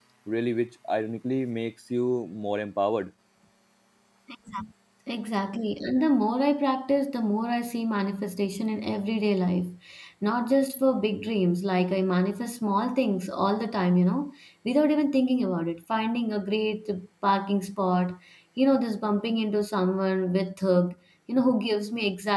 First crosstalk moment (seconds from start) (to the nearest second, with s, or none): none